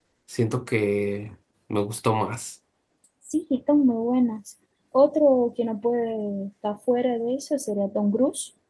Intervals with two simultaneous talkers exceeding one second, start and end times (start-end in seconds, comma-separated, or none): none